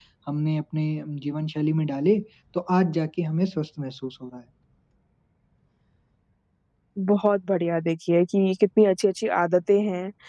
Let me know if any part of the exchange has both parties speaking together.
No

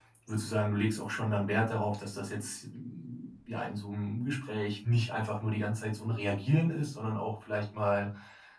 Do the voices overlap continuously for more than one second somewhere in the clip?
No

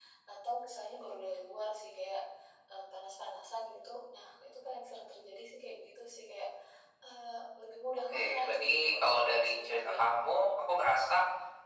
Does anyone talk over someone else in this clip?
Yes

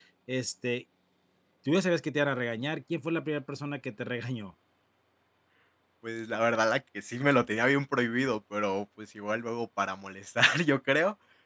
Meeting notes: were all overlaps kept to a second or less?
Yes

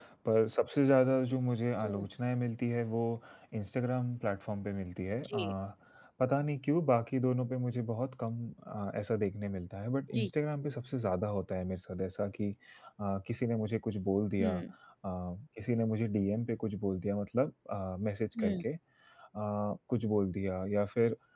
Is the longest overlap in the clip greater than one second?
No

